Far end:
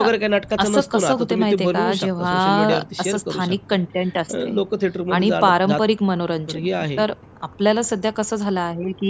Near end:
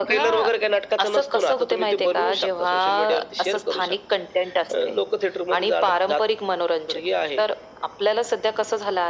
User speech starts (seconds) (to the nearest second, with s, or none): none